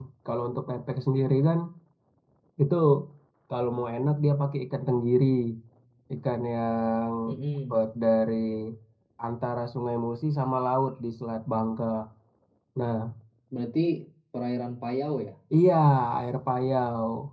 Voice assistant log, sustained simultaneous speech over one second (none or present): none